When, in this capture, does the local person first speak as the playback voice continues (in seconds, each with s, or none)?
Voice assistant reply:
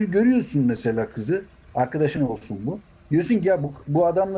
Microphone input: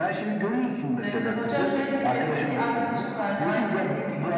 1.0 s